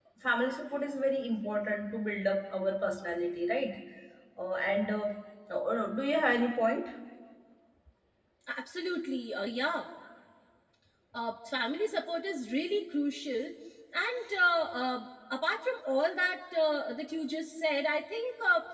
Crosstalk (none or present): none